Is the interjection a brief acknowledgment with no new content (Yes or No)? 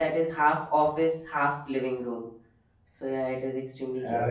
No